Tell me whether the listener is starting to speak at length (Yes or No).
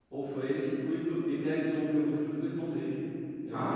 Yes